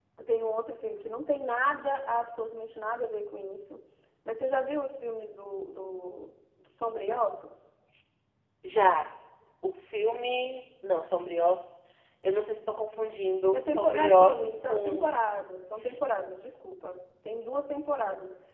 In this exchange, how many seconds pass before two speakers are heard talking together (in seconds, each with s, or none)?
13.5 s